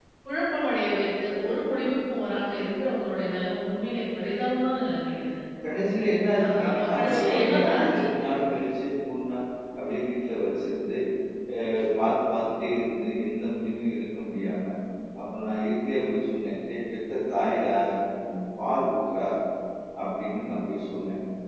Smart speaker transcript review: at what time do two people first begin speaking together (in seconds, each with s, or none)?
6.4 s